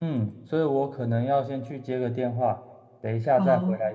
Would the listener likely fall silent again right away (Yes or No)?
Yes